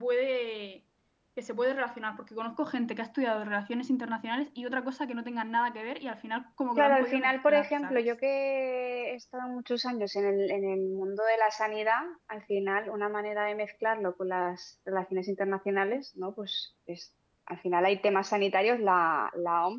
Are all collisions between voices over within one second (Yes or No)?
No